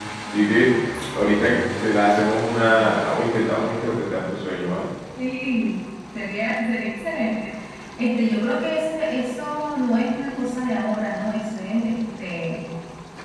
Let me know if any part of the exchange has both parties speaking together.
No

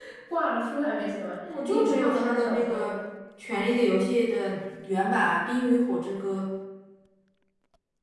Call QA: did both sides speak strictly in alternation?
No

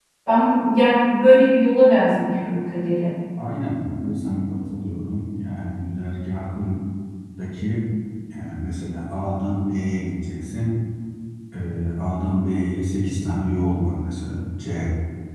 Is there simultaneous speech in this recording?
No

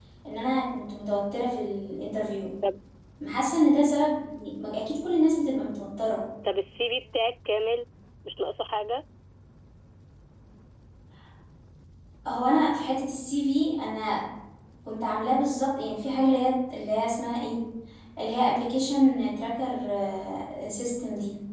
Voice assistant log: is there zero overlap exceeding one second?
Yes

